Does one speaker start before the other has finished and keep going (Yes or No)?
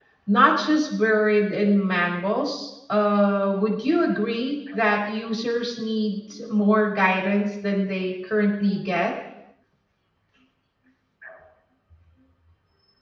No